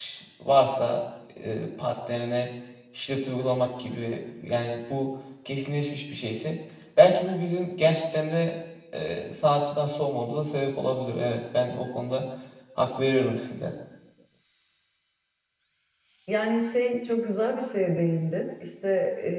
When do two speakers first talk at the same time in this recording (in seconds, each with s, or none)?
none